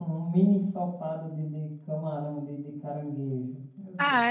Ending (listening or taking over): taking over